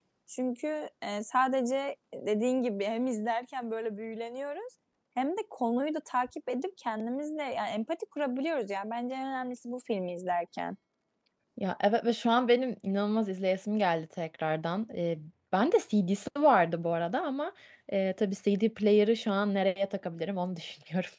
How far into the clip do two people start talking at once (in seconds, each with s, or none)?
none